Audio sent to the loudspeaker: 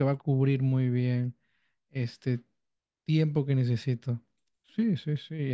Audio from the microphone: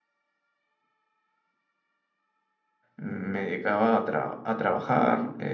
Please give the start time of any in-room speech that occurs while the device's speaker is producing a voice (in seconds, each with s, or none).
3.0 s